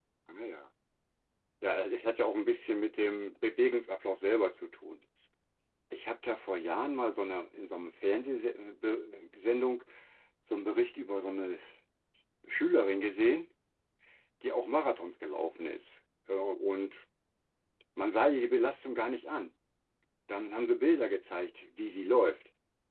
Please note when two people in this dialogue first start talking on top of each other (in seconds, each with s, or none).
none